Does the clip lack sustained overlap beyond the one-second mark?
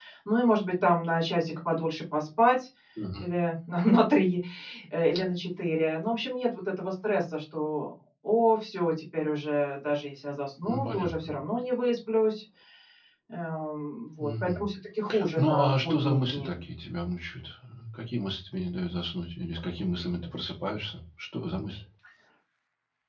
No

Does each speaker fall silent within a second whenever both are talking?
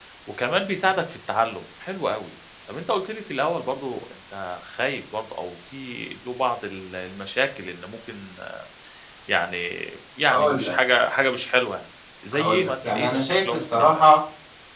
No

